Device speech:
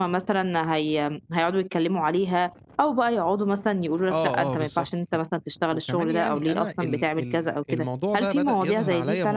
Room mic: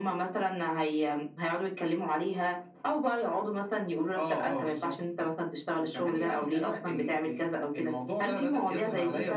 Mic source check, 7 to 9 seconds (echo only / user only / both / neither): echo only